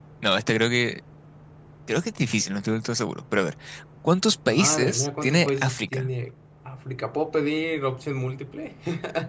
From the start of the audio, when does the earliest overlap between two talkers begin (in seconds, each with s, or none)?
4.5 s